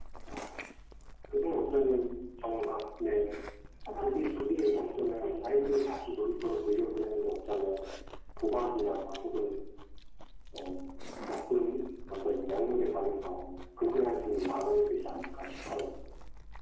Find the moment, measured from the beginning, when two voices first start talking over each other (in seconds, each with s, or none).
3.9 s